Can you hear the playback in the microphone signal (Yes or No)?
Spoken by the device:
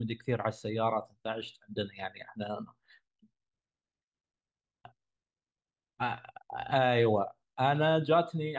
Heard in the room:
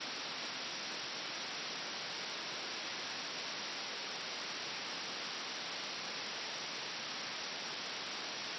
No